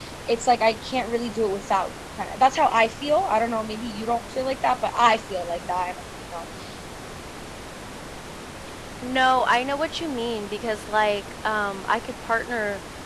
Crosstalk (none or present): none